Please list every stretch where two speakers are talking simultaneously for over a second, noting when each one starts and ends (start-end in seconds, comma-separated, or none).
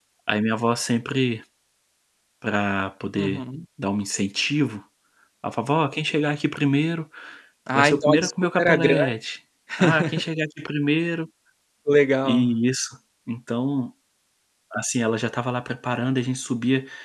7.8-9.1